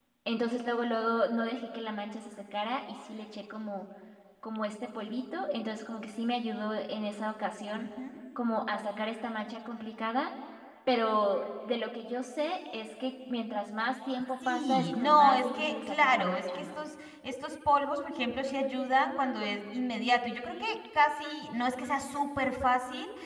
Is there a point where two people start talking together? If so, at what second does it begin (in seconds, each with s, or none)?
14.4 s